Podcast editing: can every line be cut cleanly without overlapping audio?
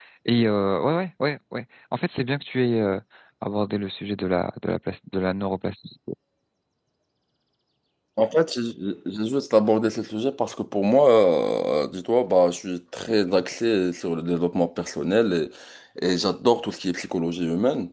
Yes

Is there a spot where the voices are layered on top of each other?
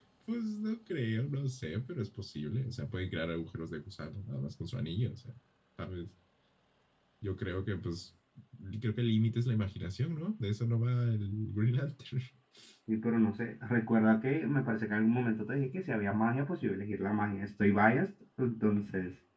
No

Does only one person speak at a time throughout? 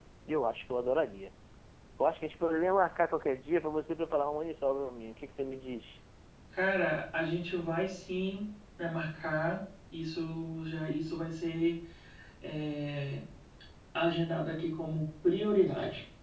Yes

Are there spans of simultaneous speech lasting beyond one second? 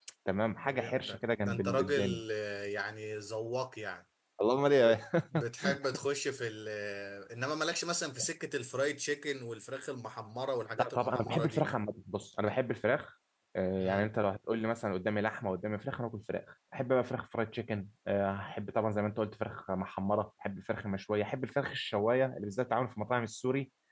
Yes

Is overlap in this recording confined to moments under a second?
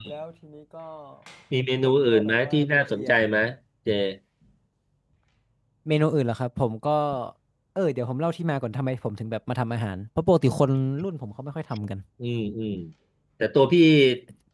No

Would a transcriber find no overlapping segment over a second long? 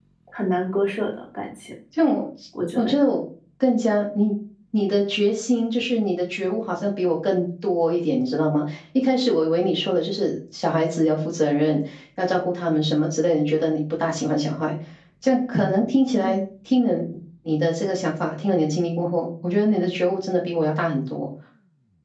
Yes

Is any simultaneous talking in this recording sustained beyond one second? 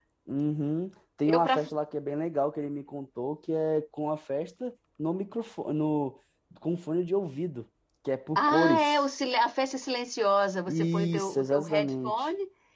Yes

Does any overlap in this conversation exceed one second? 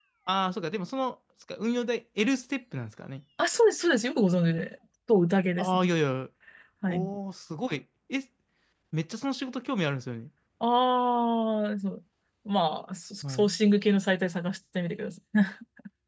No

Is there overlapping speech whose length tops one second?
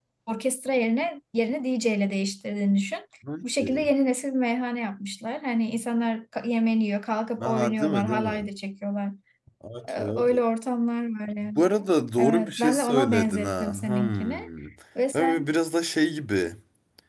Yes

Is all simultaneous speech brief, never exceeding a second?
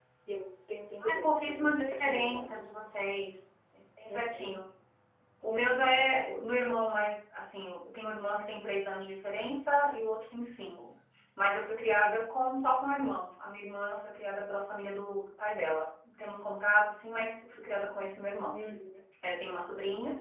No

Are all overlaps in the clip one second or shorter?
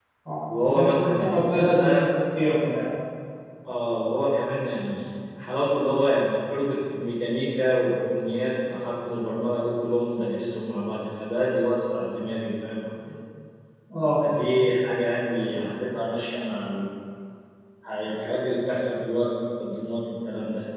No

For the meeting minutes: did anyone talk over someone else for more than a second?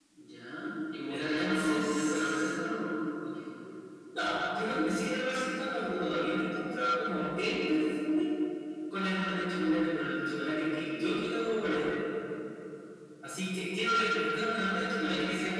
Yes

